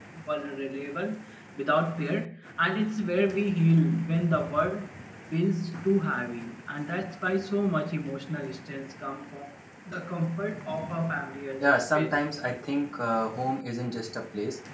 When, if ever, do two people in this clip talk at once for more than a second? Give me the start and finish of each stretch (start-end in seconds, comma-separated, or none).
none